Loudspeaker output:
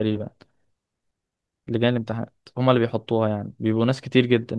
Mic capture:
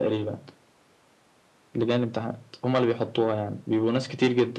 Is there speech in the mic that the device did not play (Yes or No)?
No